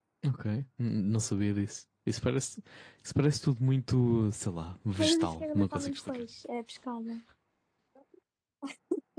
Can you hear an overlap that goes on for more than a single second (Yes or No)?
Yes